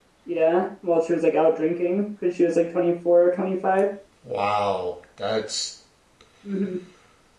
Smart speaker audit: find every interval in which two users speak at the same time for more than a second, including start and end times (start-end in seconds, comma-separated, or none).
none